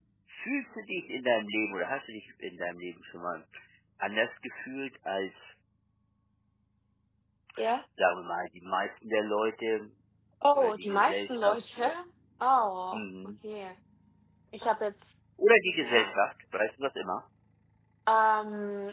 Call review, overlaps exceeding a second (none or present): present